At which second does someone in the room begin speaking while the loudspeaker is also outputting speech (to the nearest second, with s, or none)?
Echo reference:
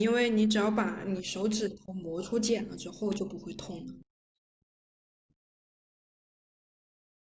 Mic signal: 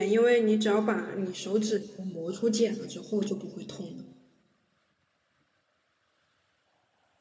none